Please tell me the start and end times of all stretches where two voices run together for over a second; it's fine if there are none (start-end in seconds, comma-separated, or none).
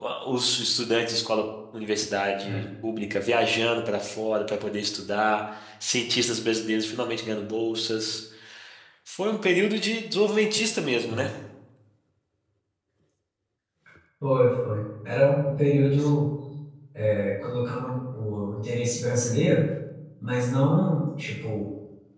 none